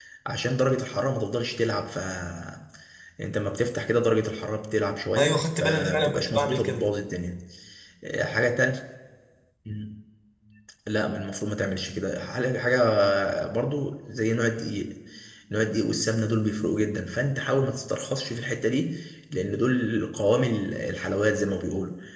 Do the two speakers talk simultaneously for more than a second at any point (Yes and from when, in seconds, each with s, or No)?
Yes, from 5.2 s